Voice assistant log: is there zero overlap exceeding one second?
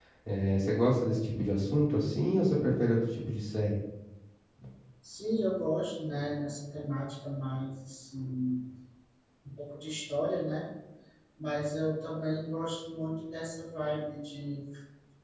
Yes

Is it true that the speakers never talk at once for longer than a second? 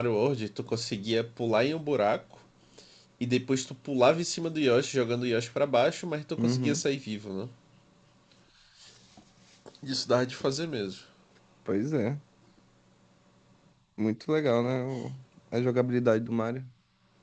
Yes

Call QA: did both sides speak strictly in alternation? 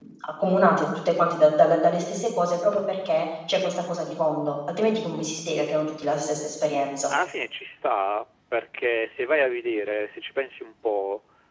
Yes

